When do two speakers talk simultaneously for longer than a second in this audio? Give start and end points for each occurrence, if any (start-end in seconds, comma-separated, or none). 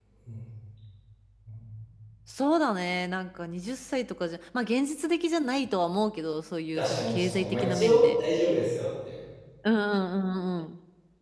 6.8-8.2